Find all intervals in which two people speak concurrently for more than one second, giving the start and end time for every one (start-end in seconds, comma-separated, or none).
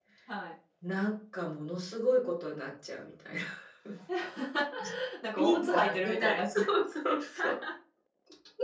5.3-6.7